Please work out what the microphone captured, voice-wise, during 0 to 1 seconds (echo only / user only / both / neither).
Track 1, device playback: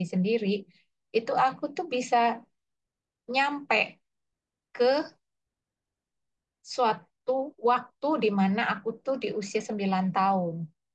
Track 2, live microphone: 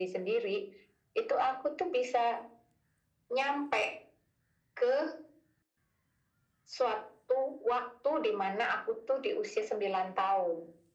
echo only